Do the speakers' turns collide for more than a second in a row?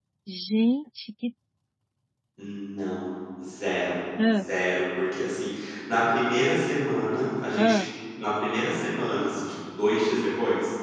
No

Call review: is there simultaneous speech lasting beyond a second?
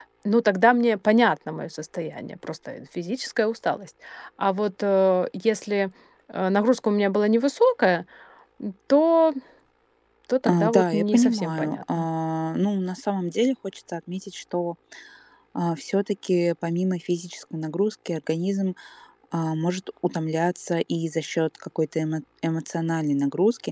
Yes, from 10.4 s

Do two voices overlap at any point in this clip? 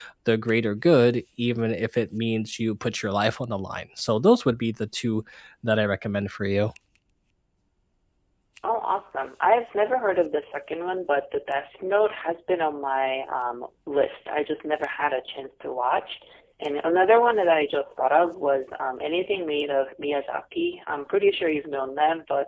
No

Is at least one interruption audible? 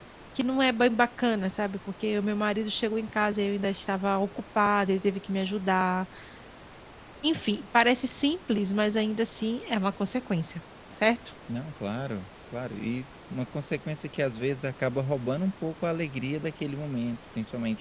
No

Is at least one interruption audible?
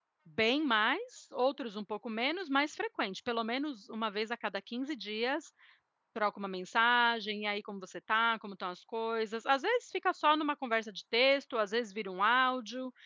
No

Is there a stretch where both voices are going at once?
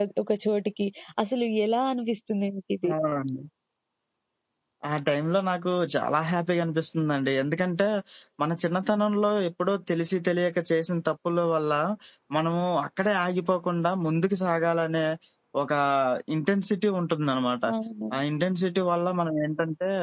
No

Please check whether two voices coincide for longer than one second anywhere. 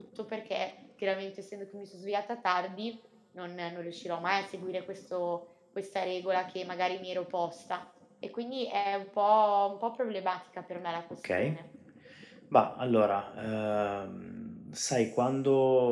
No

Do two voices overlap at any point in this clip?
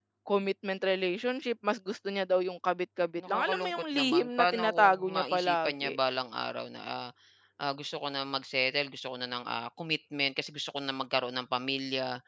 Yes, from 3.2 s

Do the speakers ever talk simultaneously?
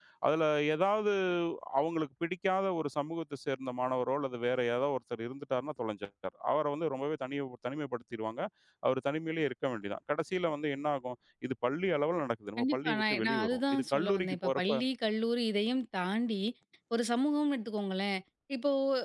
Yes, from 12.6 s

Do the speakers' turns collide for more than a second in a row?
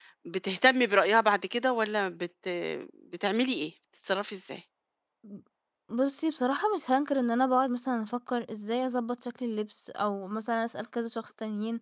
No

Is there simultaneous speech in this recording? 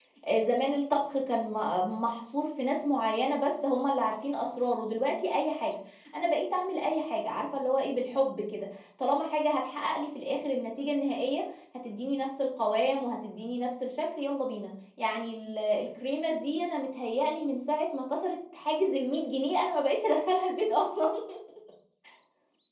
No

